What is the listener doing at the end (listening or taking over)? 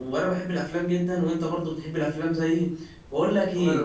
listening